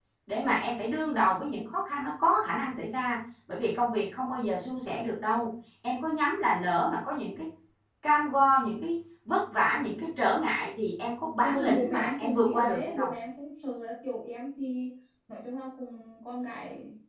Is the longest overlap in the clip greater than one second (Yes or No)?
Yes